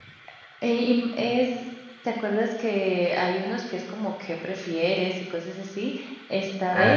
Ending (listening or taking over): listening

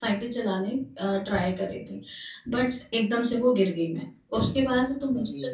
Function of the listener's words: listening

